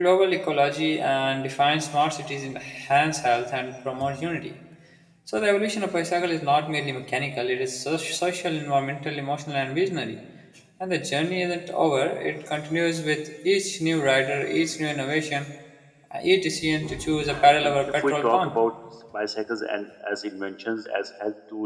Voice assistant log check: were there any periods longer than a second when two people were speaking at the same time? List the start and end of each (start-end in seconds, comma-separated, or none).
17.3-18.5